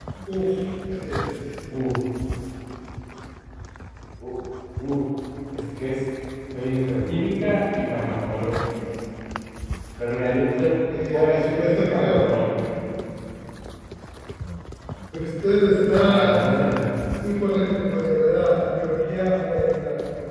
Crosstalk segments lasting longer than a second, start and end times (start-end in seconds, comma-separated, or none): 11.1-12.3